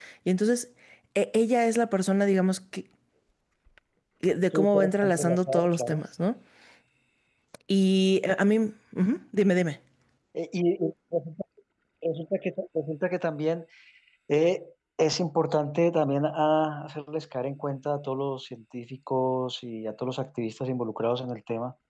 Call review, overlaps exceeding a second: present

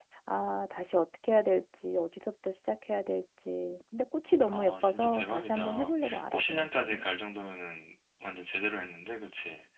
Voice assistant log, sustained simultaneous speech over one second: present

